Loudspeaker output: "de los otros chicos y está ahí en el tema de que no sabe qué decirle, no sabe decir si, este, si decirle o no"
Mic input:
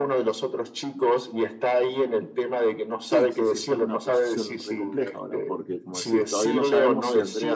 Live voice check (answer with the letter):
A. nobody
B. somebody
B